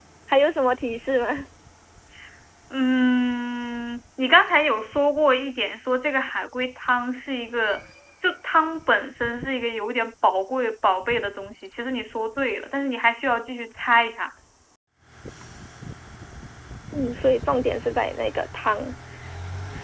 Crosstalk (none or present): none